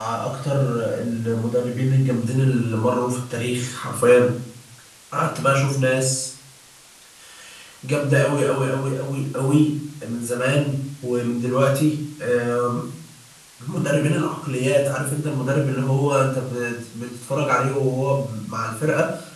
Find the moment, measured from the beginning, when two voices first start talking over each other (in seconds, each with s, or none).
none